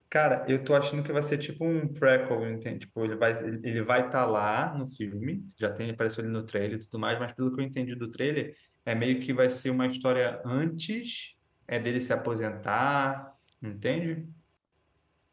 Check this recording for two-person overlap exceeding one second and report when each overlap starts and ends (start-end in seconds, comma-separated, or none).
none